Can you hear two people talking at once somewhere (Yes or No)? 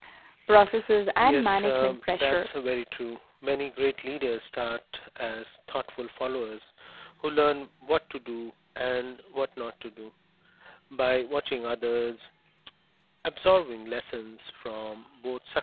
Yes